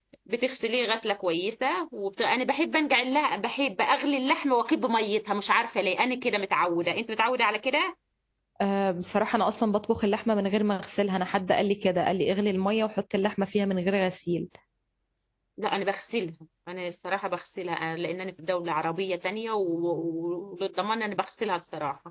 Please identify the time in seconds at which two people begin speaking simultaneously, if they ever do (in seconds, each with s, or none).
none